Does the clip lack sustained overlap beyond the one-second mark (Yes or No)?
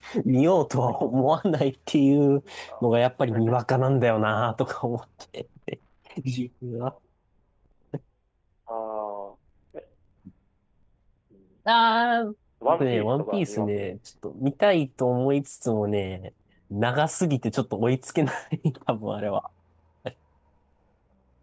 No